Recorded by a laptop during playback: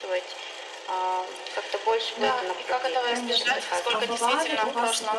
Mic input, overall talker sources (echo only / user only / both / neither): both